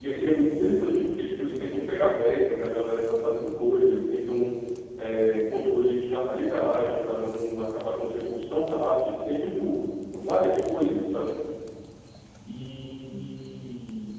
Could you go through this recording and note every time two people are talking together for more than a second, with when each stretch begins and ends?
none

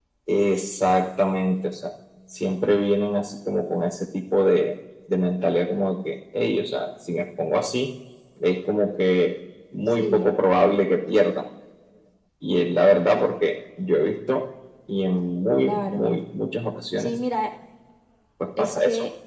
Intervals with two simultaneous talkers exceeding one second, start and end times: none

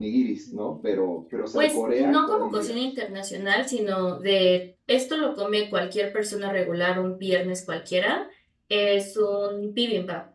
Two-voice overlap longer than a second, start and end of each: 1.6-2.8

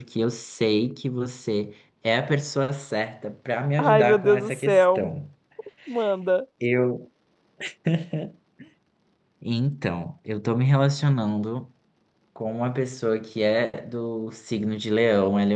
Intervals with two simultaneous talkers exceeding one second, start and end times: 3.8-5.1

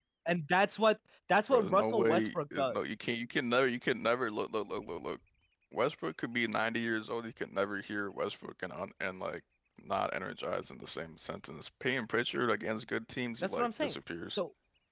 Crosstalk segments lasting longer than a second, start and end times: 1.5-2.8

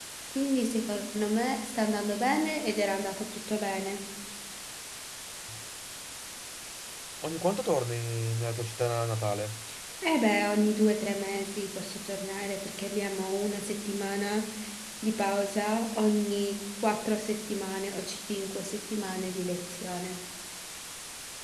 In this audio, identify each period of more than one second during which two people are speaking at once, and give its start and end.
none

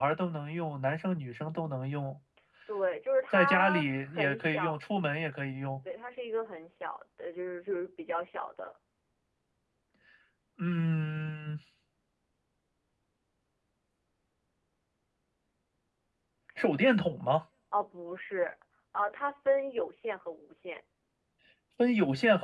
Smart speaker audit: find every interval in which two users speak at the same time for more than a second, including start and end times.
3.3-4.8

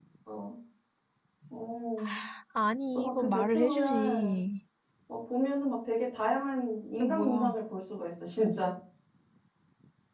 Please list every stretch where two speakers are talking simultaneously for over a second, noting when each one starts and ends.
3.0-4.4

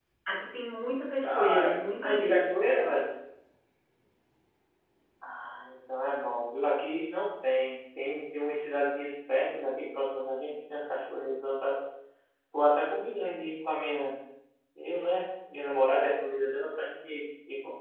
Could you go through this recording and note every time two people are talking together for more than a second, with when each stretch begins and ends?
1.3-2.6

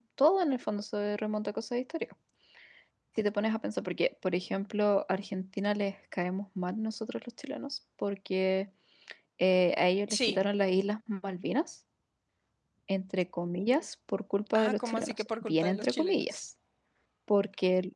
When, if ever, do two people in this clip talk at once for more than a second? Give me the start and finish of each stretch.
14.6-16.4

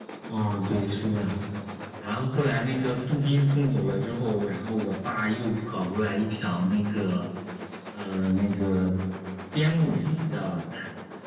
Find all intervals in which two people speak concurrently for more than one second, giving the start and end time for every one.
none

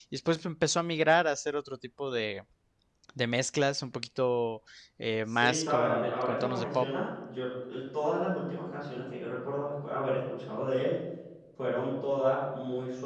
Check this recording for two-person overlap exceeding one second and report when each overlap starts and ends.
5.3-6.9

